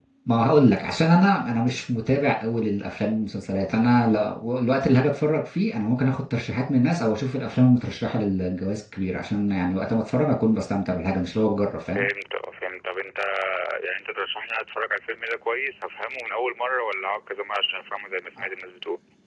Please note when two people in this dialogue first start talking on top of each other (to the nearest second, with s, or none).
none